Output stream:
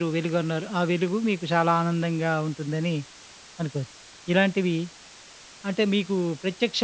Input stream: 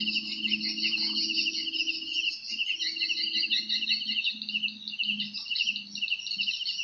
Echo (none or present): none